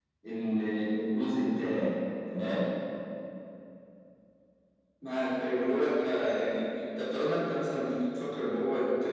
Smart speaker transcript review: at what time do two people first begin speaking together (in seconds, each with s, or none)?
none